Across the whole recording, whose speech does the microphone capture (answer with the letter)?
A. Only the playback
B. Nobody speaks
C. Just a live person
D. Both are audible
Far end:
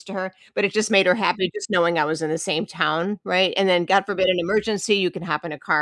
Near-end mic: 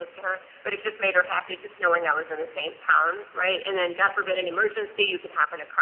A